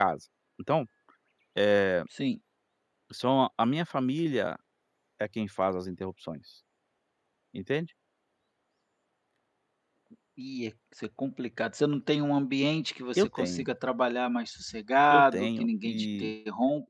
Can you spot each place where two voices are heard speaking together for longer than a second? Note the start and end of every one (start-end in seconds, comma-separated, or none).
15.1-16.3